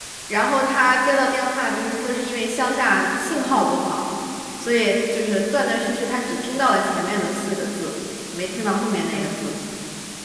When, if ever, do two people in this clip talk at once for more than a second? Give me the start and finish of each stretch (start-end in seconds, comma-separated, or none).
none